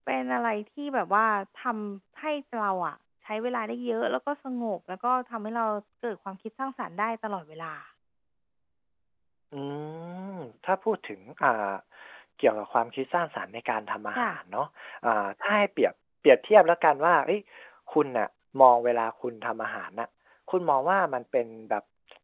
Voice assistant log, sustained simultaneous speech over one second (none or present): none